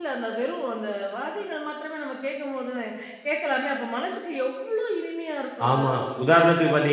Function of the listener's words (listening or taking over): taking over